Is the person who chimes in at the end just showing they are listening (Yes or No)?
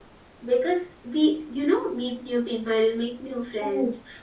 Yes